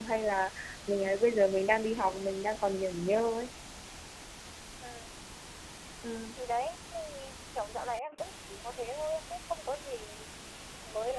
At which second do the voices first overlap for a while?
none

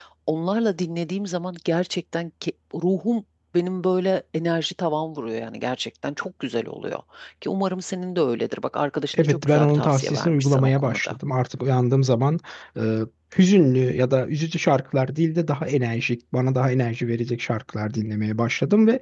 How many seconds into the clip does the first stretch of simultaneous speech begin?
9.1 s

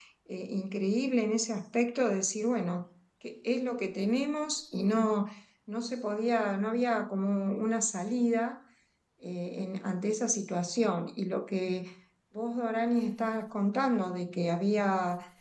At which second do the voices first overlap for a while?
none

